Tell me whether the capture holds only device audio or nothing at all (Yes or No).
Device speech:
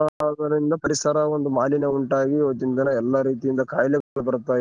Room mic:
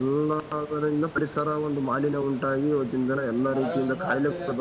No